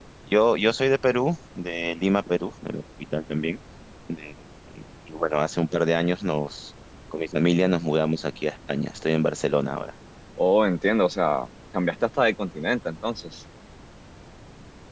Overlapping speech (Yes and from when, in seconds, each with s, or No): No